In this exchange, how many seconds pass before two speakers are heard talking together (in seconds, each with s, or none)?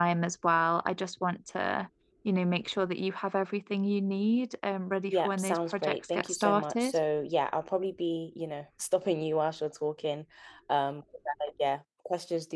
5.1 s